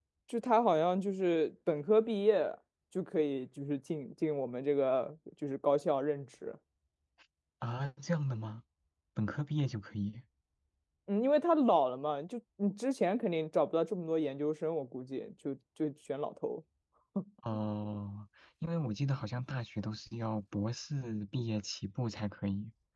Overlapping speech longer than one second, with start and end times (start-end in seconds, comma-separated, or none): none